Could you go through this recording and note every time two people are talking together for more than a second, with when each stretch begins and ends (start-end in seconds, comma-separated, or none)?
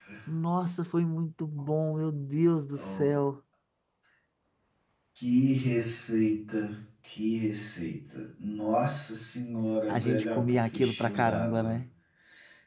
9.9-11.7